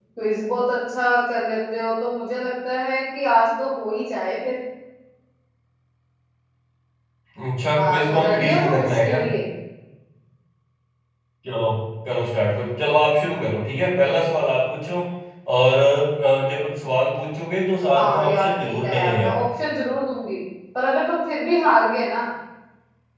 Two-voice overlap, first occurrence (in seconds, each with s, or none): 7.8 s